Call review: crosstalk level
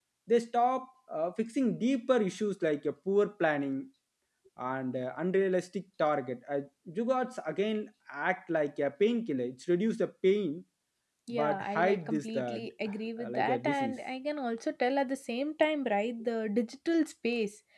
present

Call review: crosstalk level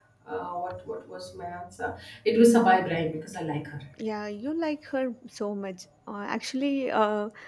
none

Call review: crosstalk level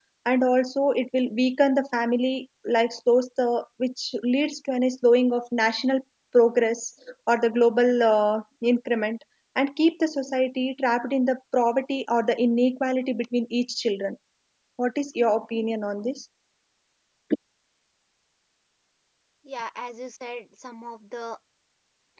none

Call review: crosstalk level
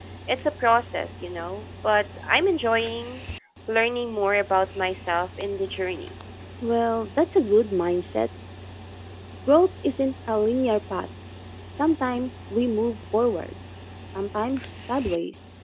none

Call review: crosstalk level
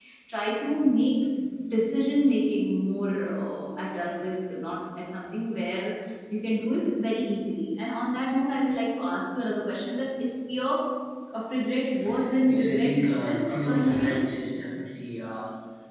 present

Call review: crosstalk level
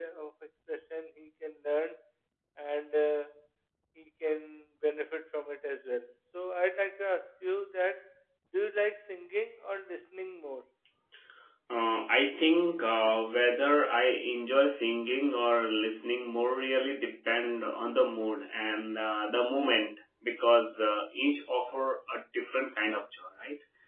none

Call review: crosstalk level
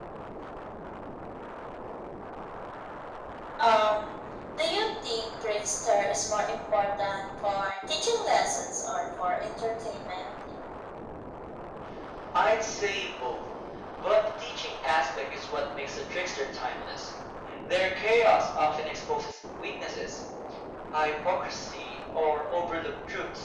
none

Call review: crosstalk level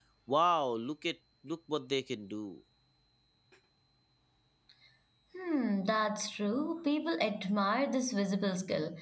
none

